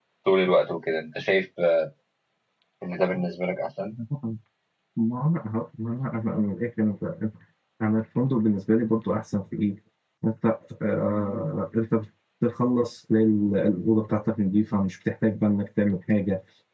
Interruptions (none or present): none